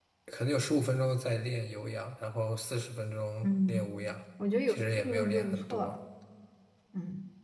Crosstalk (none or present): present